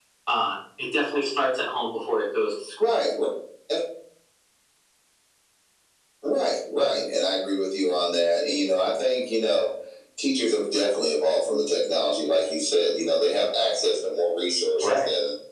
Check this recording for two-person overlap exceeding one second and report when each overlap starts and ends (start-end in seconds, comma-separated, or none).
none